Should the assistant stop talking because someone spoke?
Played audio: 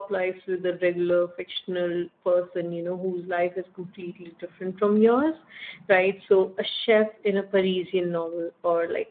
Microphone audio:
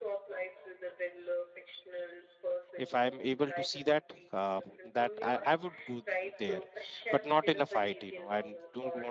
Yes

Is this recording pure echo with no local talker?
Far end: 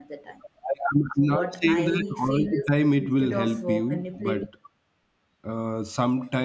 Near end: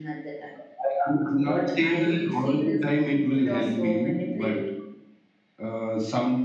Yes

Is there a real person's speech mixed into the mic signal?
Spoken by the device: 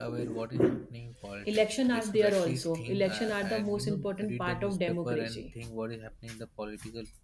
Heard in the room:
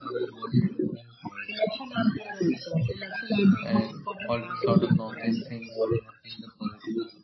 Yes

